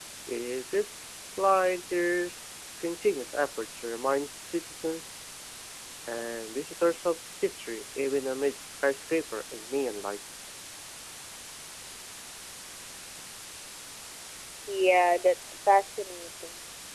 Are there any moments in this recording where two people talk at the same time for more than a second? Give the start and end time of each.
none

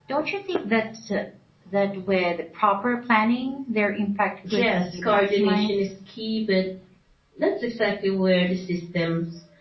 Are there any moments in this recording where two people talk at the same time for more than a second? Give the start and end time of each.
4.6-5.8

